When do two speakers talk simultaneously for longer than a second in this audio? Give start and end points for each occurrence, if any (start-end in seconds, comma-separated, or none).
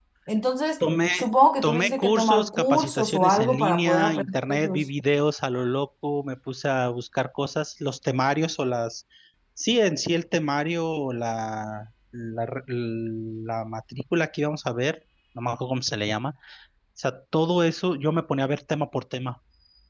1.6-4.9